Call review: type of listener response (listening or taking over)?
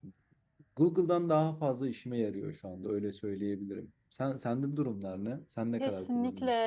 taking over